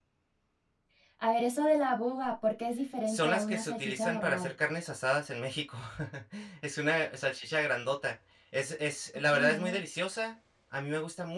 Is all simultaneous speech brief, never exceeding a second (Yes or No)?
No